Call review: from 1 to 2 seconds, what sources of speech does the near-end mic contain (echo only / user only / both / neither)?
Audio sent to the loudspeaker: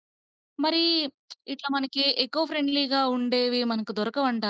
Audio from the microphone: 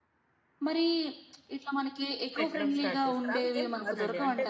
echo only